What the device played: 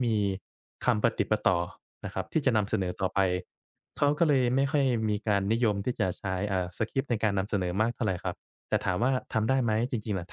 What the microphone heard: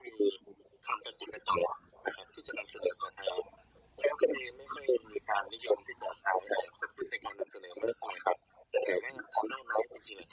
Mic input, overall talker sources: echo only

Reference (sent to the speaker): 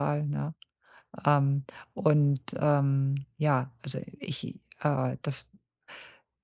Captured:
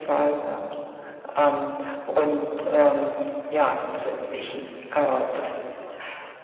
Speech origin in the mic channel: echo only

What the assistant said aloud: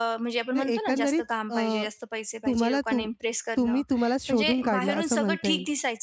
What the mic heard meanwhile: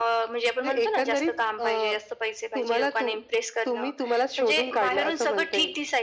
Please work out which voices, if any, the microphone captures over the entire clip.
echo only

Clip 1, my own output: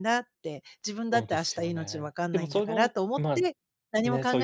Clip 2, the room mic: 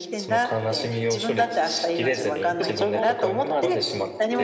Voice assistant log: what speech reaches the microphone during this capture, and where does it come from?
both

